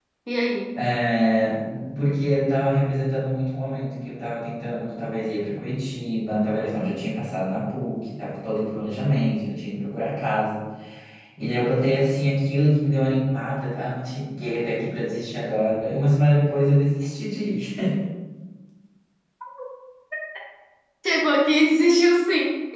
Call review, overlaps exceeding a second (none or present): none